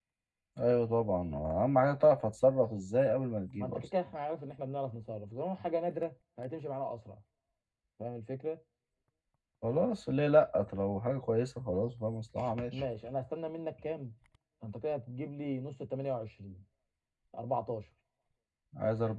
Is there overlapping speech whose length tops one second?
No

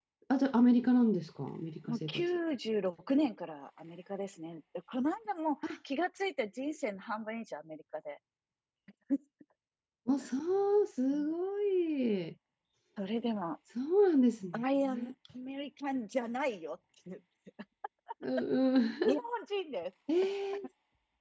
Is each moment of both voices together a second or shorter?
Yes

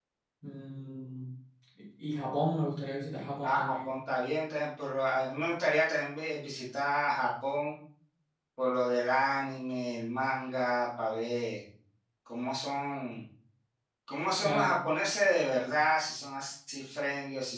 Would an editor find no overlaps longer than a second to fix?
Yes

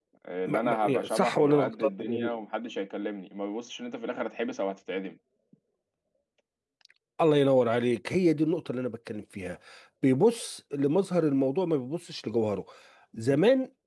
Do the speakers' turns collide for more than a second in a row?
Yes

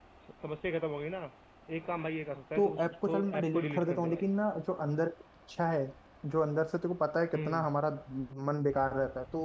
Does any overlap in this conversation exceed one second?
Yes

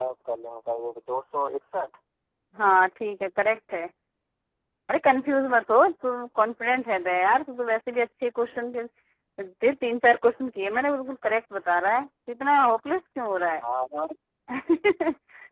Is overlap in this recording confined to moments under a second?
Yes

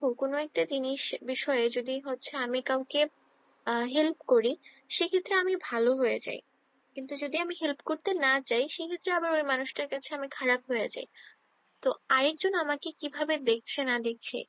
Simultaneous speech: No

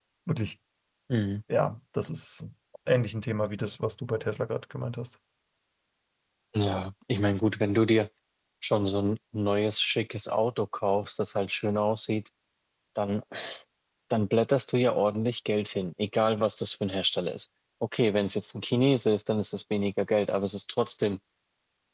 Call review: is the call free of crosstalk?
Yes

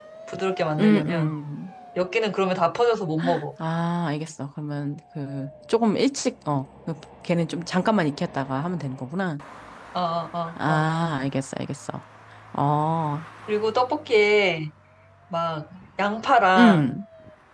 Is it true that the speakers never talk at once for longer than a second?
Yes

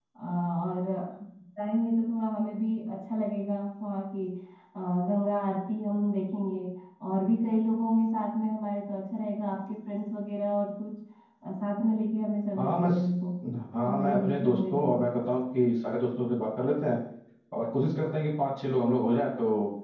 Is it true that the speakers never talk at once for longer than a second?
No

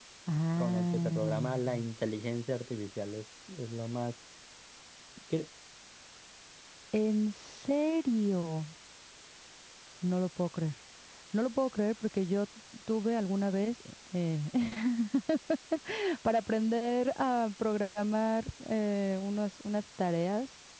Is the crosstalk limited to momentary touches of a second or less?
No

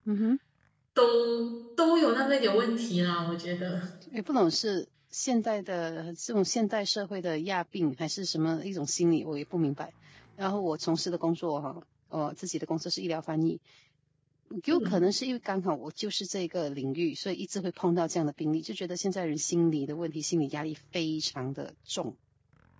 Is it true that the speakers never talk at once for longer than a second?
Yes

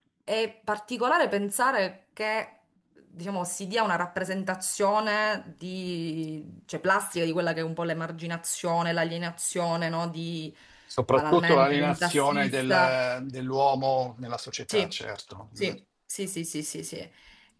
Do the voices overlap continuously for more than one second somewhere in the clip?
Yes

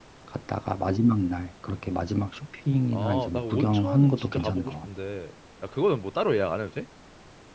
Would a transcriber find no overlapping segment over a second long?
No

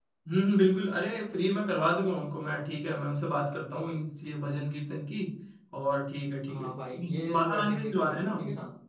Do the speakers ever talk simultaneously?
Yes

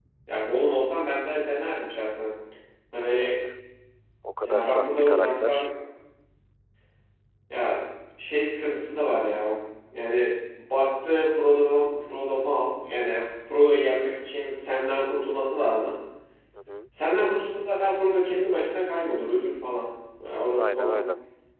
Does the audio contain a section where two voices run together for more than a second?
Yes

